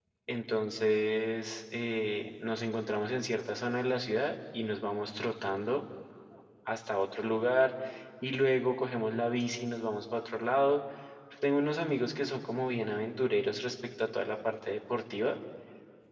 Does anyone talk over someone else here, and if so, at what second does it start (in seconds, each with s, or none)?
none